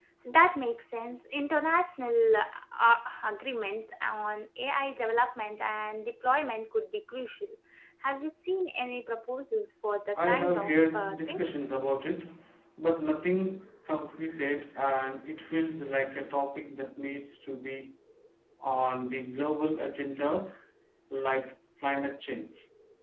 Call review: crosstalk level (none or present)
present